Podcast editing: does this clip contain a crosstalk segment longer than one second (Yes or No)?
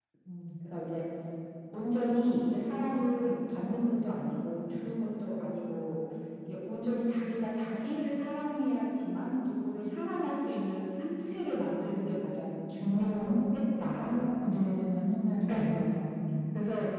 No